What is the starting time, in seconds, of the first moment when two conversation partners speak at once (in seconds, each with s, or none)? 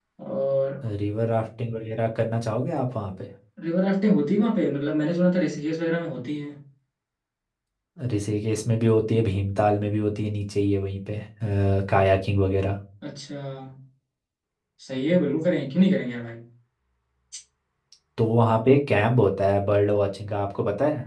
none